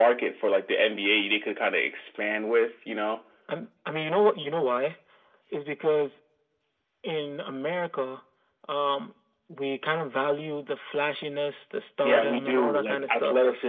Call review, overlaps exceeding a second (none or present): present